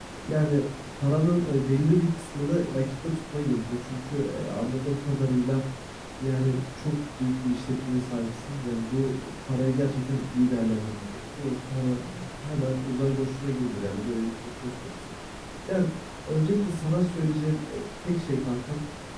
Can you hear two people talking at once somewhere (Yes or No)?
No